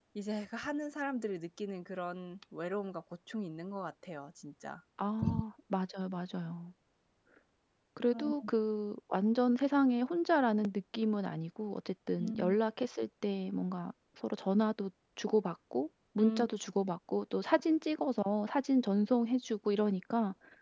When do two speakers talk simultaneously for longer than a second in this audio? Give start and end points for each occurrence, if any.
none

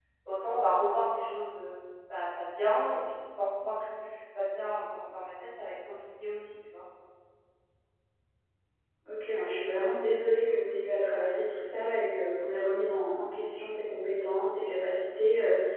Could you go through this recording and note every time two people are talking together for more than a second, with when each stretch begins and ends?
none

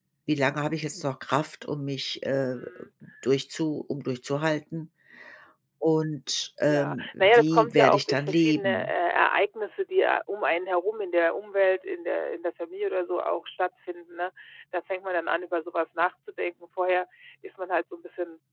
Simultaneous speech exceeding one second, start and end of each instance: 6.7-8.9

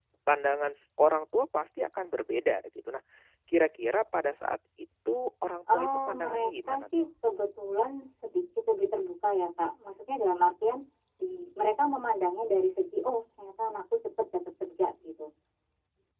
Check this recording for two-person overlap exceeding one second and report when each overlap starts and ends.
5.7-7.0

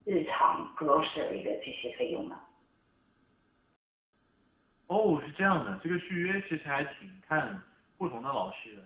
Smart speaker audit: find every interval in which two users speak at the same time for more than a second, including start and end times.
none

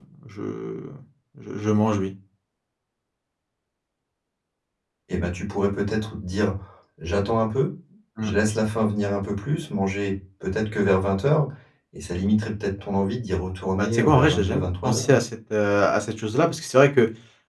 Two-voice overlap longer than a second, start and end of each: 13.8-15.1

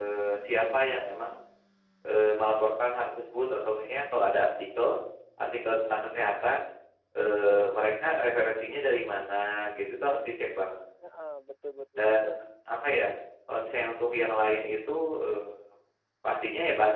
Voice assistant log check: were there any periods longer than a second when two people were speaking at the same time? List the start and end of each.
none

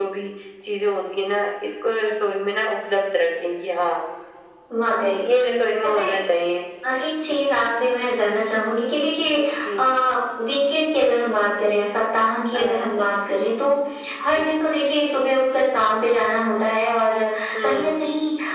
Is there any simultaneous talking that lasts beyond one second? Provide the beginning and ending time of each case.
none

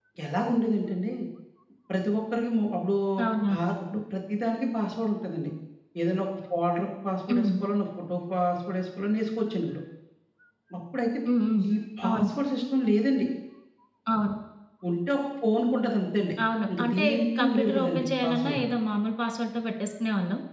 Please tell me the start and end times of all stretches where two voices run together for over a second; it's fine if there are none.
17.4-18.6

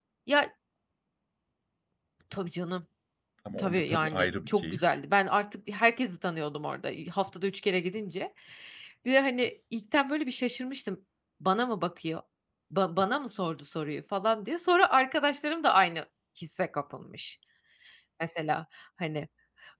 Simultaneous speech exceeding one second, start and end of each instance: 3.6-4.9

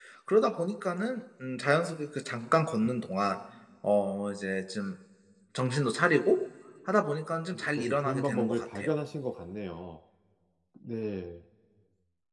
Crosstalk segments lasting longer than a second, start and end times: 7.5-8.9

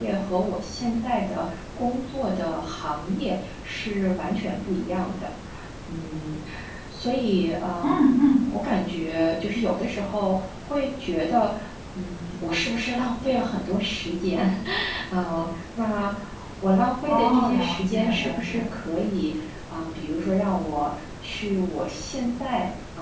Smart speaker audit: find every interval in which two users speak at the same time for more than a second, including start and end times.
17.1-18.6

